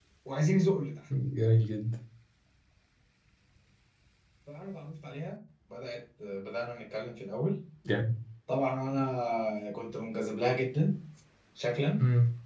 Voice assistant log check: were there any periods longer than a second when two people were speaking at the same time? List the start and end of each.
none

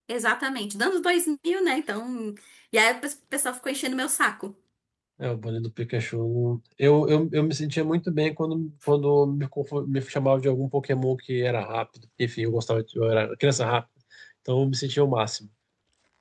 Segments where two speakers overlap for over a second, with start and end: none

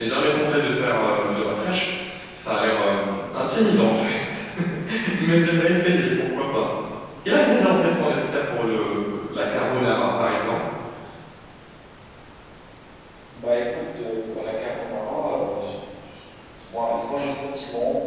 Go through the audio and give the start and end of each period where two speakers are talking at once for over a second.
none

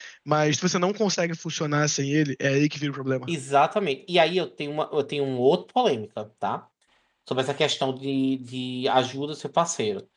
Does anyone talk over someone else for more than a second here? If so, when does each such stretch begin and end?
none

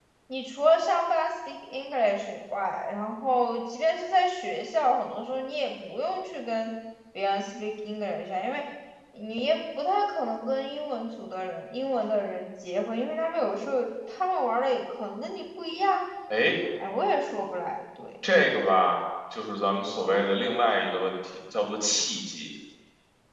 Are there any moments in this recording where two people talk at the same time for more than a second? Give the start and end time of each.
none

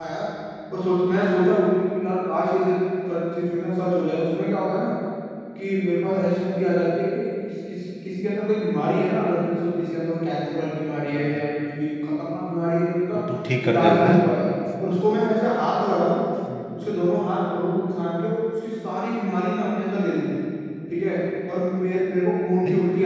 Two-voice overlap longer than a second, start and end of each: none

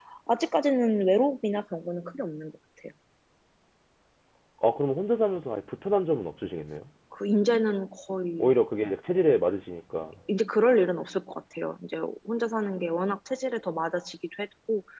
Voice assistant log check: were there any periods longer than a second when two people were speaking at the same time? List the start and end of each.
none

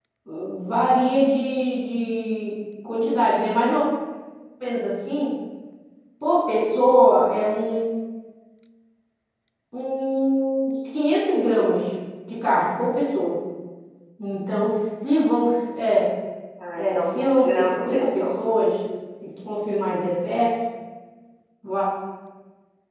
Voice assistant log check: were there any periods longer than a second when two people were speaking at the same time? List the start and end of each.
16.8-18.4

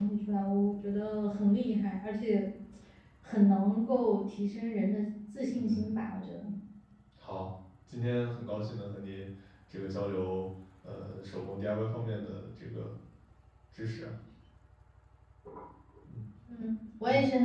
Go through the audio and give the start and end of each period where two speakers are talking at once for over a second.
none

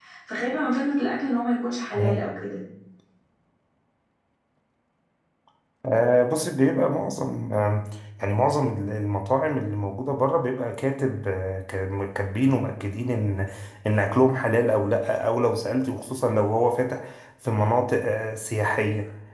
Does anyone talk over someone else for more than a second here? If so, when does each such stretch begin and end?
none

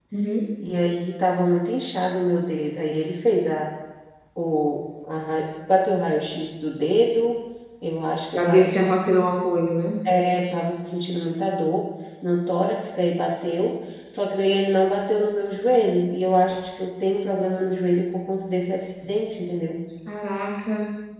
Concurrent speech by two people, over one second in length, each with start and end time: none

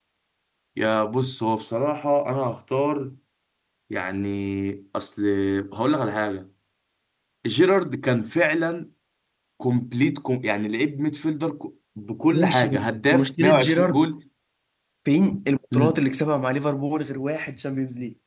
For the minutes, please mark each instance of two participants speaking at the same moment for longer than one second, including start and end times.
12.3-14.0

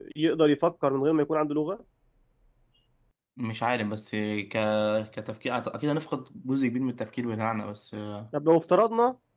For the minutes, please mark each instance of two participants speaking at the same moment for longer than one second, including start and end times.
none

